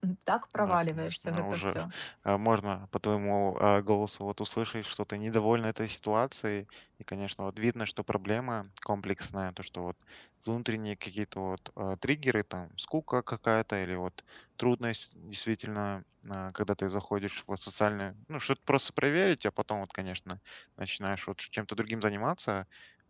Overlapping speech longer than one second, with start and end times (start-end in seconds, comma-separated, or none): 0.6-1.8